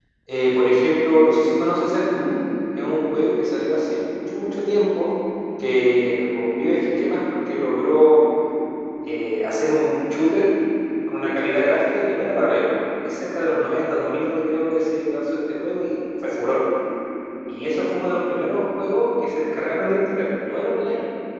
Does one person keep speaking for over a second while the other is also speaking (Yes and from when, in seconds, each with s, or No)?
No